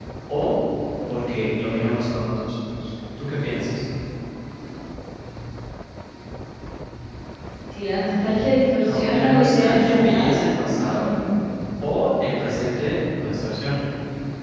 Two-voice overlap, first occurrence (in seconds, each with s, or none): 8.8 s